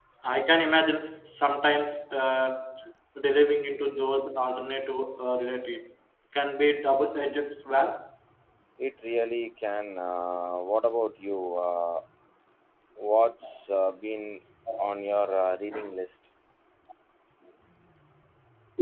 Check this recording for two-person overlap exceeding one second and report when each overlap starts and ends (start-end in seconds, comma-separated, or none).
none